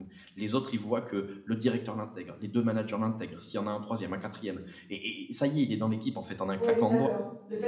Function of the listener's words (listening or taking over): taking over